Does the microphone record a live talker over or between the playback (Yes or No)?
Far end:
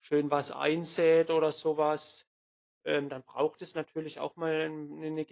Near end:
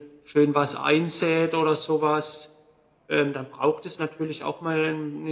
No